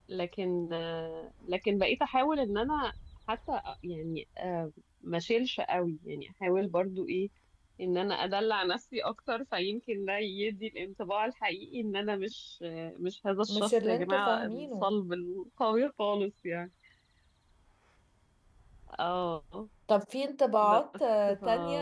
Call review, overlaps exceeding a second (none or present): present